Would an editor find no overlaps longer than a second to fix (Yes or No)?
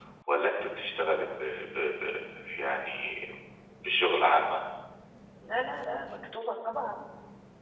Yes